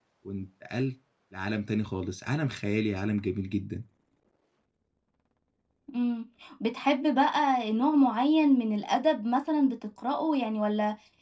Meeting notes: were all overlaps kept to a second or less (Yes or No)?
Yes